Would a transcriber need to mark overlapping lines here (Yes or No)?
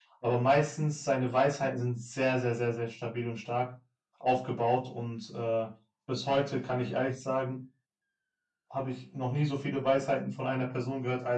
No